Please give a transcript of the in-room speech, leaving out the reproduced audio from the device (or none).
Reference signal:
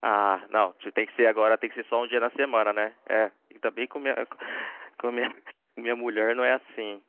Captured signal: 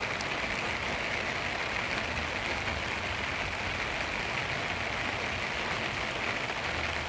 none